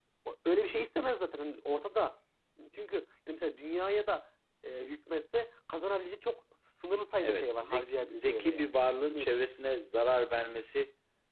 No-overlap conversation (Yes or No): No